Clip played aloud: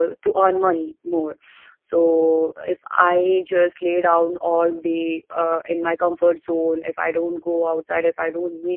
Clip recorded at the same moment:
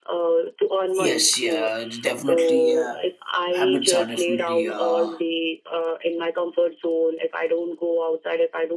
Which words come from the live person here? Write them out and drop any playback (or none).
Yes, yeah, definitely. Uh, habits are definitely. Uh,